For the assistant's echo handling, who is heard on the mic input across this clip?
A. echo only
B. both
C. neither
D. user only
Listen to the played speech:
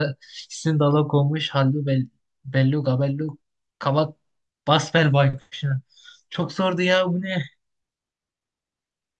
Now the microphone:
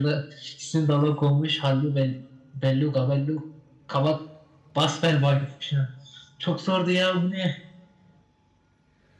A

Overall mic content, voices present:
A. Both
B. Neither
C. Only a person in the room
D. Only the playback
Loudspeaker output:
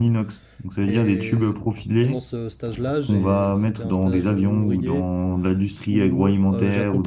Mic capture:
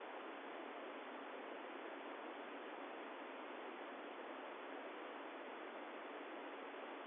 B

